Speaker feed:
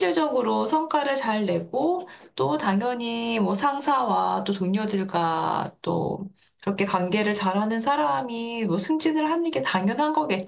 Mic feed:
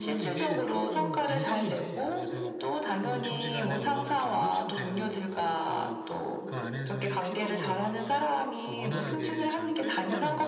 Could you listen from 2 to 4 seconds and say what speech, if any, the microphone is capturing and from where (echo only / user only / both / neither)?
both